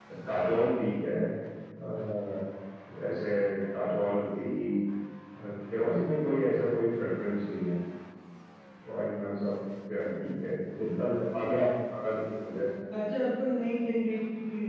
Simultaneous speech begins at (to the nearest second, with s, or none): none